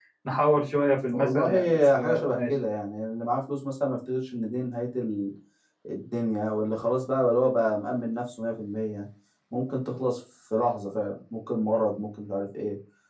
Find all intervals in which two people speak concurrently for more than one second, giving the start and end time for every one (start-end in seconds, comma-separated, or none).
1.1-2.4